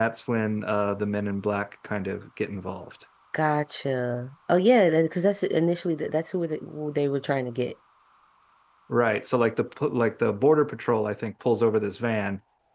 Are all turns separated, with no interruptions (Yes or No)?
Yes